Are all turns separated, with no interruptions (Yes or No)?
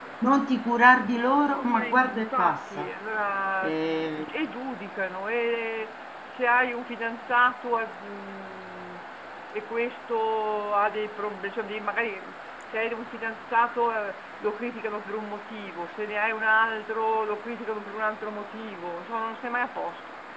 No